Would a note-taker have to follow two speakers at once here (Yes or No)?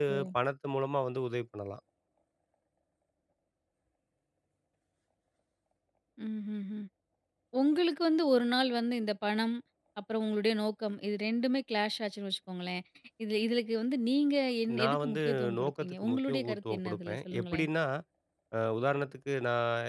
Yes